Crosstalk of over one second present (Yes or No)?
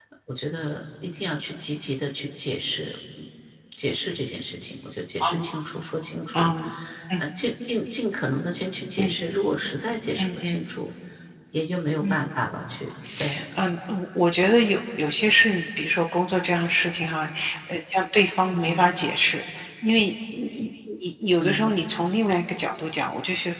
No